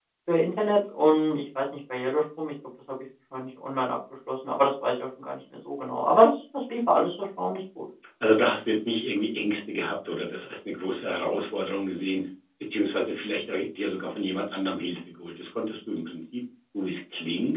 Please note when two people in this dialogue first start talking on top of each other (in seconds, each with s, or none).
none